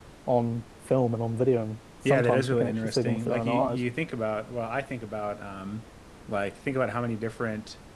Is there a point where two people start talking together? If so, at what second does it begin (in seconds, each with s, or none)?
2.0 s